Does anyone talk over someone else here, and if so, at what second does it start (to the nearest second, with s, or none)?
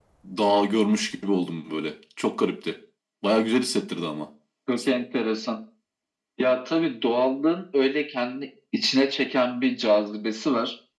none